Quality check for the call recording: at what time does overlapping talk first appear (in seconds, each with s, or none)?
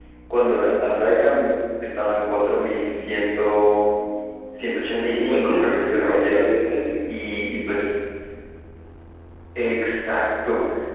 5.1 s